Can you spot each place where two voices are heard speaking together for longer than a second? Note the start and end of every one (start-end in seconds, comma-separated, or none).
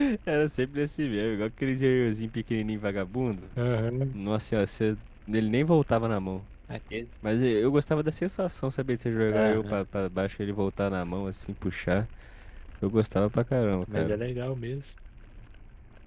none